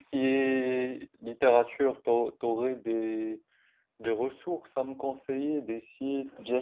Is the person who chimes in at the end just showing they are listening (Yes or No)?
No